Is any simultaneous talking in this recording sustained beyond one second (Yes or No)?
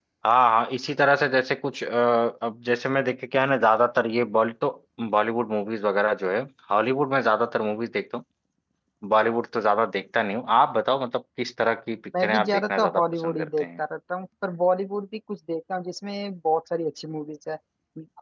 Yes